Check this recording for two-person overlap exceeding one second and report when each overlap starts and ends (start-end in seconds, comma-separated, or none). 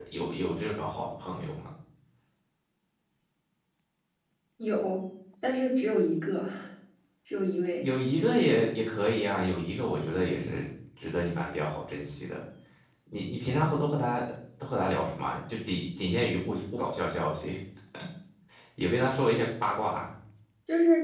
none